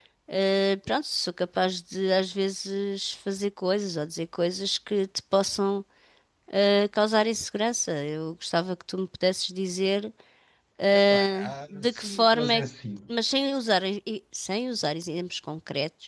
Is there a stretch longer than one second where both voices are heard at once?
Yes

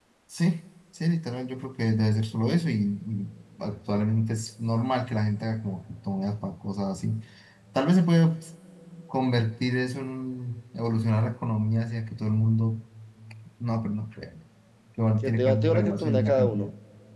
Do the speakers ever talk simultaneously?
Yes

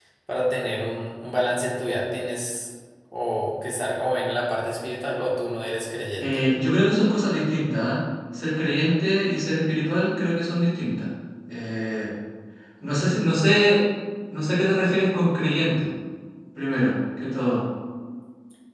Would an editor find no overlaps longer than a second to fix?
Yes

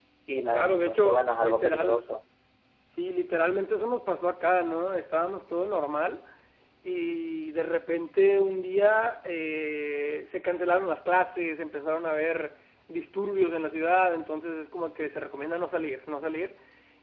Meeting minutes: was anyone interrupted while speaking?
Yes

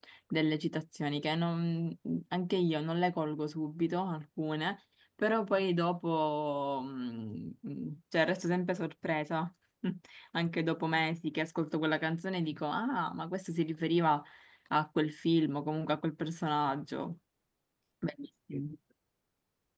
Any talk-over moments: No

